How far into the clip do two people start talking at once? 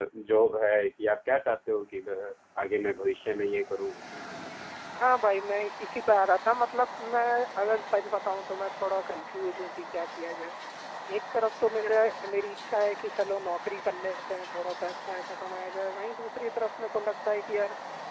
none

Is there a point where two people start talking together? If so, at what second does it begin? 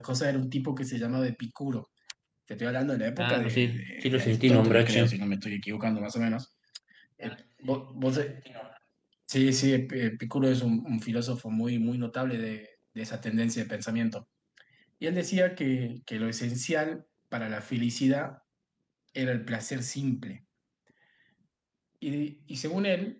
3.2 s

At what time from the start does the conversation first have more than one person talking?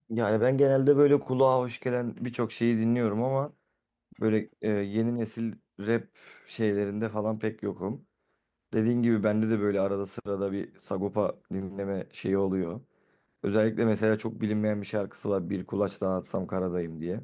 none

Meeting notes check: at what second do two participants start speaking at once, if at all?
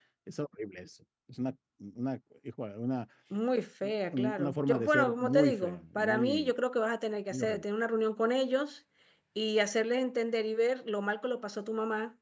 4.1 s

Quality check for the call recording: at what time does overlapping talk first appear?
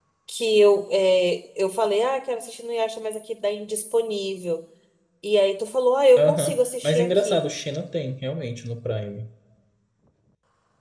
6.2 s

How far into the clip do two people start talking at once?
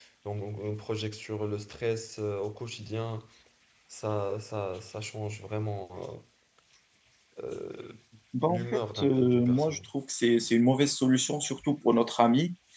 8.5 s

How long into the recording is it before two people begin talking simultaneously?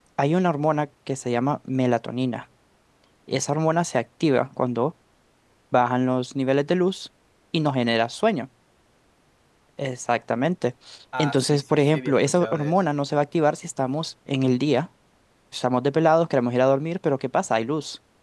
11.2 s

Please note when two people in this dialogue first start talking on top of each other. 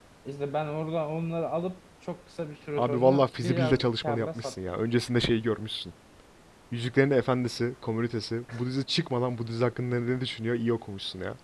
2.8 s

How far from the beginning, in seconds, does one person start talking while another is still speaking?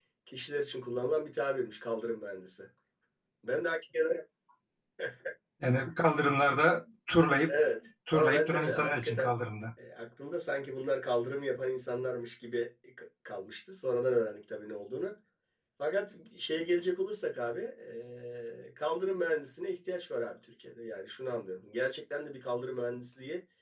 8.1 s

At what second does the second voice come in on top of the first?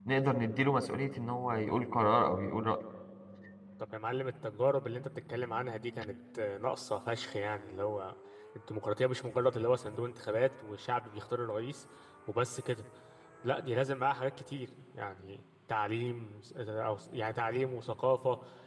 none

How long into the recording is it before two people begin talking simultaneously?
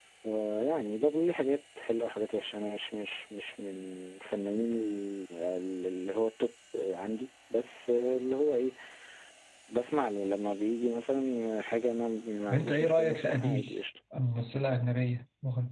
12.5 s

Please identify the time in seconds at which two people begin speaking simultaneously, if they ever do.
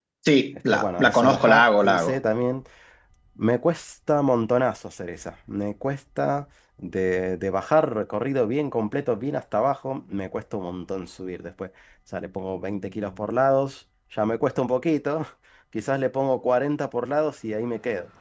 0.7 s

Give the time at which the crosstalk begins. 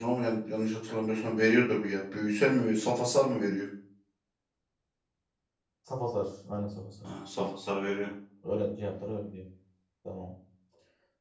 none

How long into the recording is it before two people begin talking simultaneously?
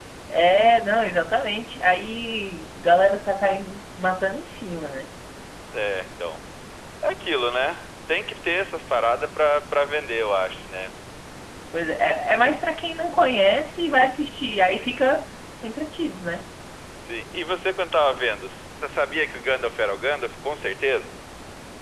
none

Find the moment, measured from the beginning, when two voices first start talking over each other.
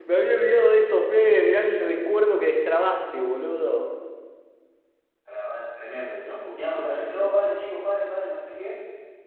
none

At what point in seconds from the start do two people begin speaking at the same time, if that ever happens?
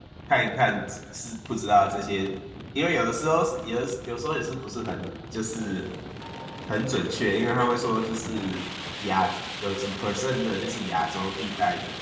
none

